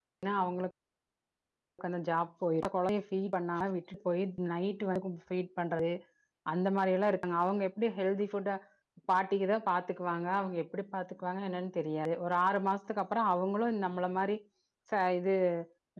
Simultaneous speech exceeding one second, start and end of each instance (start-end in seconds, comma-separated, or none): none